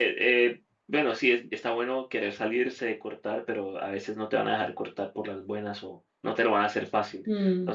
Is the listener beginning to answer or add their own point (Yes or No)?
Yes